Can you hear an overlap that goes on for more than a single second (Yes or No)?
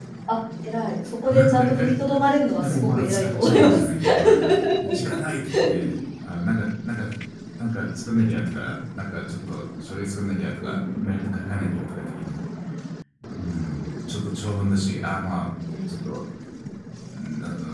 Yes